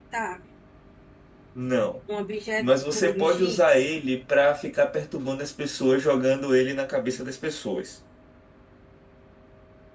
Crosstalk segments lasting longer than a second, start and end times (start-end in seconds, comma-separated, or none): 2.6-3.9